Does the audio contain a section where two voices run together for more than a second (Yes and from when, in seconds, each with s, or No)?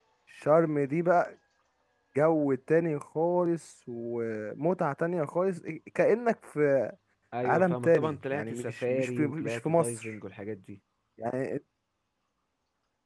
Yes, from 7.4 s